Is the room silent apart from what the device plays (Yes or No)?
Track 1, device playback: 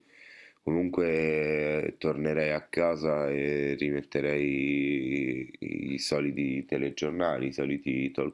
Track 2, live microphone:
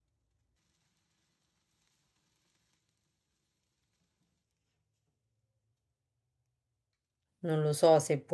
No